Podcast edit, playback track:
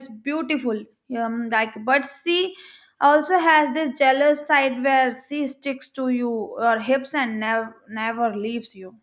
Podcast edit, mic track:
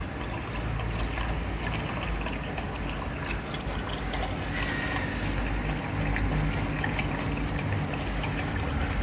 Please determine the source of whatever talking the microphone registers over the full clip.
neither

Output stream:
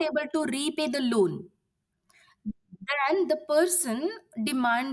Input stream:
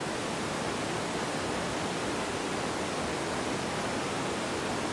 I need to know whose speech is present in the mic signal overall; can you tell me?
neither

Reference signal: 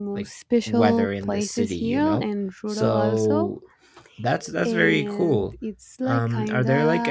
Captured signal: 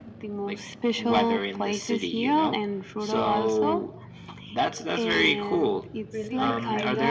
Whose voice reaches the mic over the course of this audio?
both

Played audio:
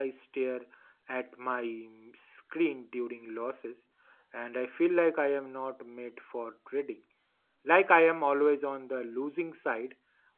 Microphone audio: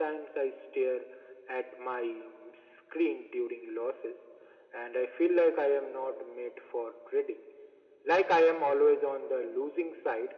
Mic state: echo only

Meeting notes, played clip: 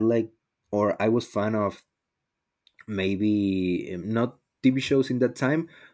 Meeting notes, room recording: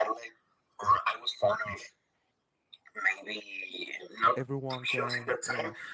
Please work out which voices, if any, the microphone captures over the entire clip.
both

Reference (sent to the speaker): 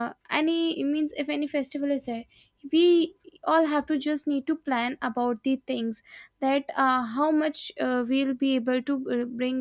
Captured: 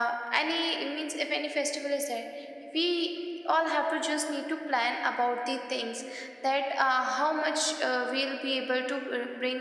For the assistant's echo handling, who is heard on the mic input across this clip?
echo only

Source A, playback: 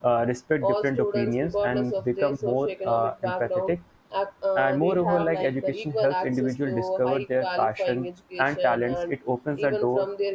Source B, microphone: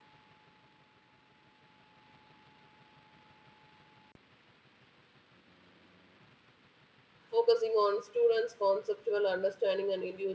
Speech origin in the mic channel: user only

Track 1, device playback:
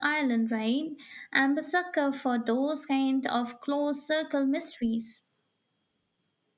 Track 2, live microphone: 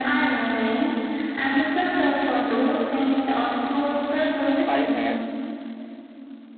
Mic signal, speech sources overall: both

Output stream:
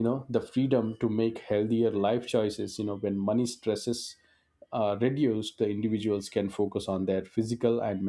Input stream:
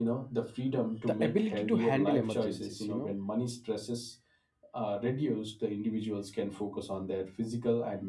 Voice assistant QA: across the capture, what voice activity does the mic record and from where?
both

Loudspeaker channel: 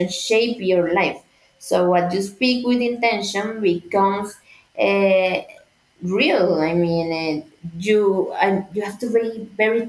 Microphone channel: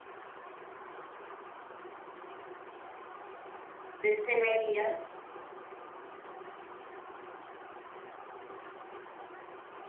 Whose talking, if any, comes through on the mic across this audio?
user only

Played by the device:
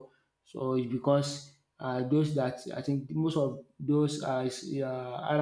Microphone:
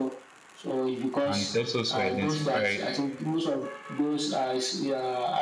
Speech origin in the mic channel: both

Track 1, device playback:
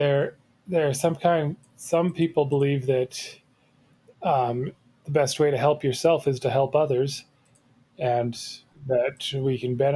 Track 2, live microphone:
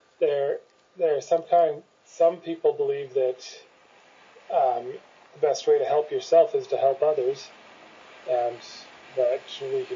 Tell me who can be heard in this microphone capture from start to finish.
echo only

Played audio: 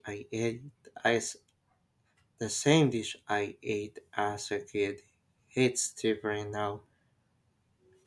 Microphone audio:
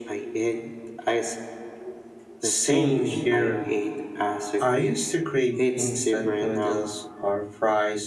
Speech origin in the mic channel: both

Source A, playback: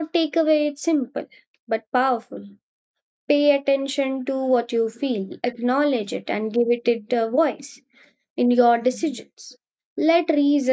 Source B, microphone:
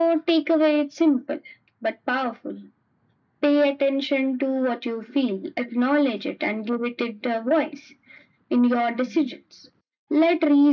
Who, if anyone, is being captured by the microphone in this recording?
echo only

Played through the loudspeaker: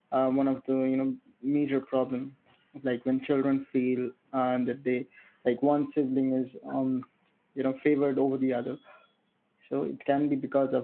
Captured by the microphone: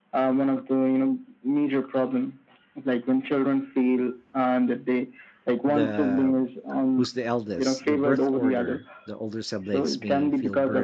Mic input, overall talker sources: both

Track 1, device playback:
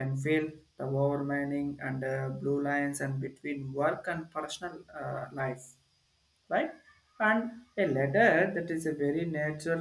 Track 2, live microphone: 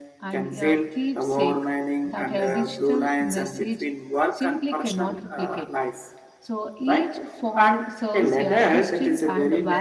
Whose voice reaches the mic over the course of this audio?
both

